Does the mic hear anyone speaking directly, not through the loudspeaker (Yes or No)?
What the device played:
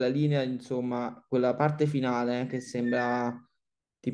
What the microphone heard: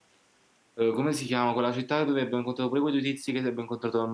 Yes